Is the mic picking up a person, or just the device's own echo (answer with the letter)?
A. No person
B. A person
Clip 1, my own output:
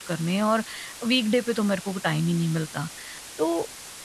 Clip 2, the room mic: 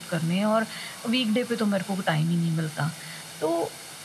A